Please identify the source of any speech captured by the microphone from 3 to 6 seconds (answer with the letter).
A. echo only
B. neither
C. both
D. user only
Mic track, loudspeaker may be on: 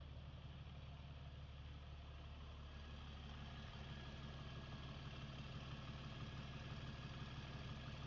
B